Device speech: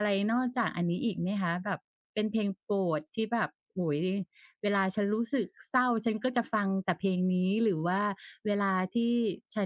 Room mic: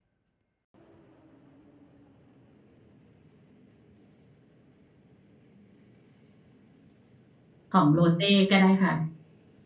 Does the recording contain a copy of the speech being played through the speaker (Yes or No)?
No